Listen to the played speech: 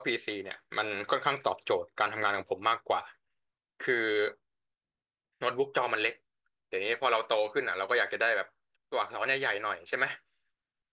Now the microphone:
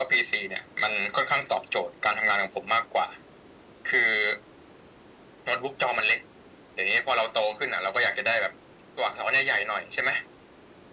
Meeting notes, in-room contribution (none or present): none